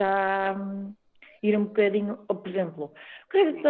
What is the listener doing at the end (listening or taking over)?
listening